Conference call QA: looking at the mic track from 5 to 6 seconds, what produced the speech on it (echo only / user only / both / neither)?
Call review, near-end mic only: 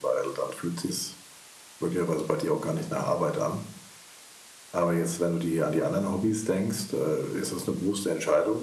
echo only